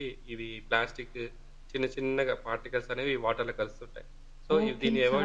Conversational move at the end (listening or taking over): taking over